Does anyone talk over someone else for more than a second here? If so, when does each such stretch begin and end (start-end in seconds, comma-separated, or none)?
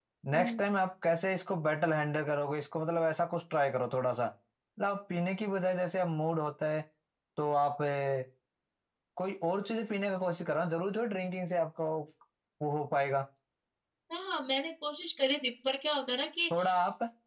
none